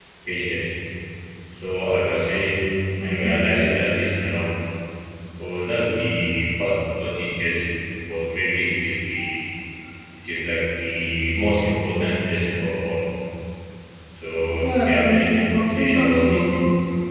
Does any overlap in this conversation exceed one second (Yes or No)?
Yes